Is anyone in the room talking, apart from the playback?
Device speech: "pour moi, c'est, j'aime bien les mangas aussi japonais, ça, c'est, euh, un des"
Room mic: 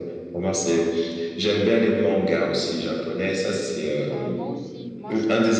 Yes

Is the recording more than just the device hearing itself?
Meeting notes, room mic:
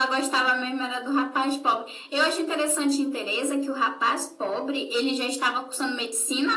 No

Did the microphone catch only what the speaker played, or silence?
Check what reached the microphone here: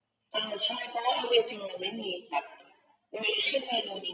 Yes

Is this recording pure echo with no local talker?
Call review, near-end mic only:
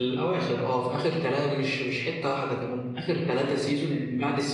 No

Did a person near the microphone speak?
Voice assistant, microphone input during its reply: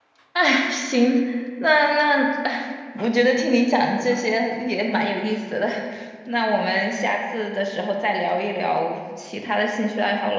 Yes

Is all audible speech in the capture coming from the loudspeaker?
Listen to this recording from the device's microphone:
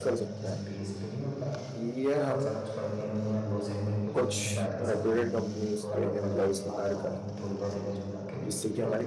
No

